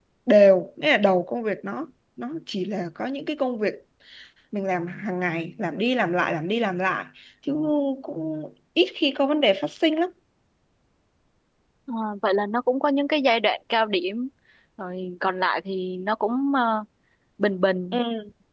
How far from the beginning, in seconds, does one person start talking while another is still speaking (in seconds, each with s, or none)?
none